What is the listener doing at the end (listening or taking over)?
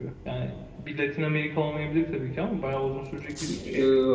taking over